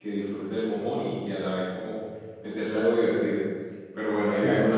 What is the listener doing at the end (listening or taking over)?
listening